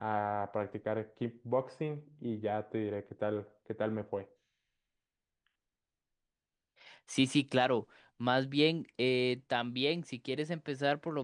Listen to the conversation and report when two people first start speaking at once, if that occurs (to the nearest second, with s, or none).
none